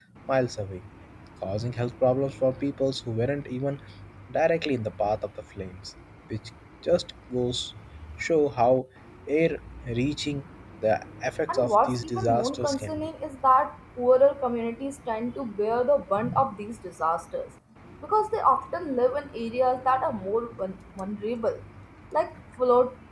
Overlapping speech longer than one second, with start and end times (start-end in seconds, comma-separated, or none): 11.5-13.1